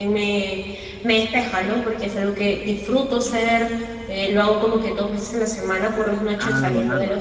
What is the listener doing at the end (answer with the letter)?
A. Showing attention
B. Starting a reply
A